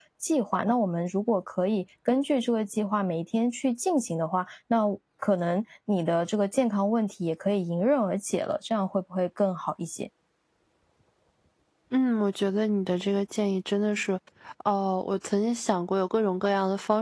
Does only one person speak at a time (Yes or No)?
Yes